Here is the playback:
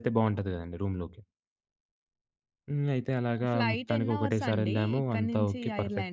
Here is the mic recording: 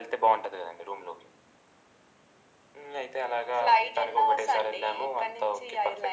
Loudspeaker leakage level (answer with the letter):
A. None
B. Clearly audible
B